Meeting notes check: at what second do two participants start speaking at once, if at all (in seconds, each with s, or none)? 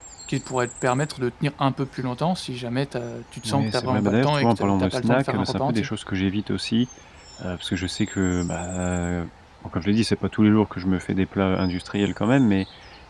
3.4 s